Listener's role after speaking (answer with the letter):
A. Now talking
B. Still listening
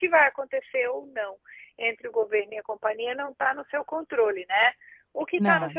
B